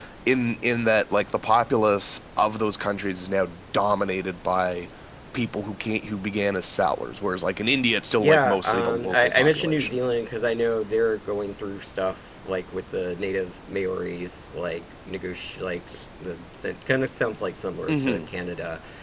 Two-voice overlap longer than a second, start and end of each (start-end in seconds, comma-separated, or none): 8.2-10.0